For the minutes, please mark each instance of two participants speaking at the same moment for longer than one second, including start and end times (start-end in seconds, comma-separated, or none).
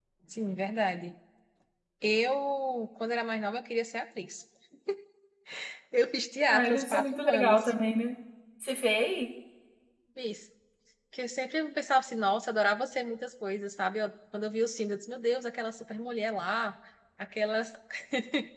6.5-7.7